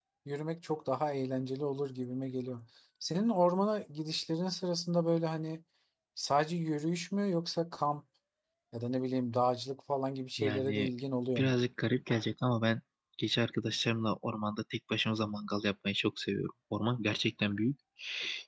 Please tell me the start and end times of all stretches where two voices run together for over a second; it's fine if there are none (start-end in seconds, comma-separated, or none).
none